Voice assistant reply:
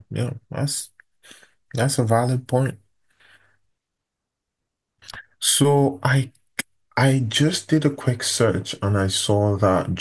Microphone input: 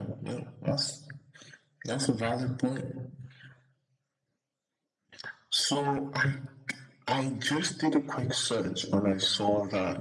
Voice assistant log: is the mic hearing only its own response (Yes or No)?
Yes